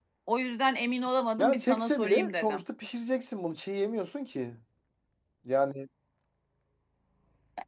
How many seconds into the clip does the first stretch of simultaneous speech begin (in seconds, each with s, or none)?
1.4 s